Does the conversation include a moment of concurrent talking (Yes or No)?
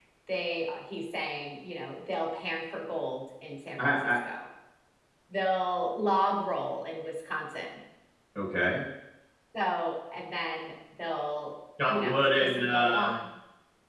Yes